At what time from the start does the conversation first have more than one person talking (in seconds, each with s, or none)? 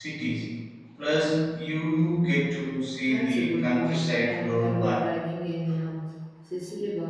3.1 s